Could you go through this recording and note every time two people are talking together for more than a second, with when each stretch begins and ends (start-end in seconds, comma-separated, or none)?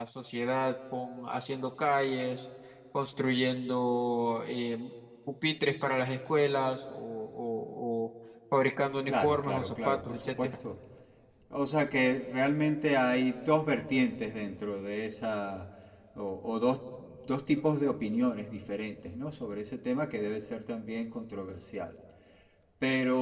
9.1-10.5